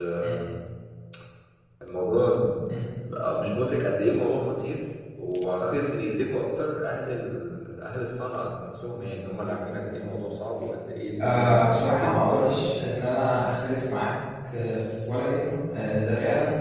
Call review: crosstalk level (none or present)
present